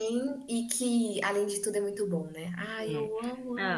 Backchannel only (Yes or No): No